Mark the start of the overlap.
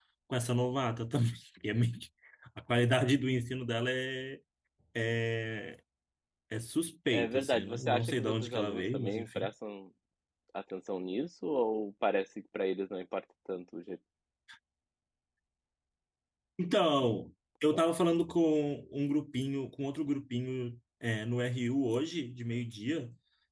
7.1 s

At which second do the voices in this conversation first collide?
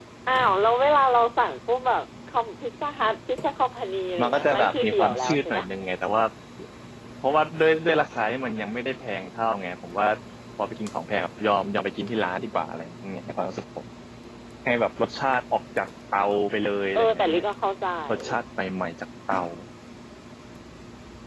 4.2 s

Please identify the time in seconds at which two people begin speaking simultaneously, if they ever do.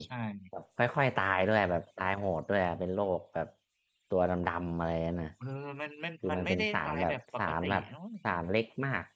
6.2 s

